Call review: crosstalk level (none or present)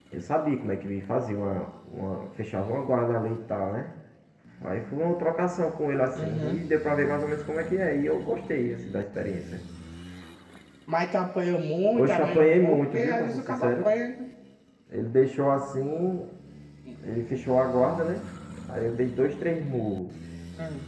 present